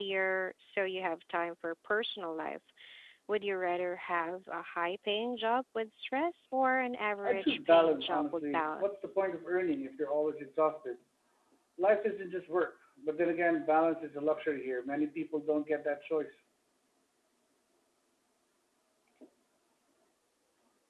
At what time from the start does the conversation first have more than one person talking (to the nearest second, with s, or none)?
7 s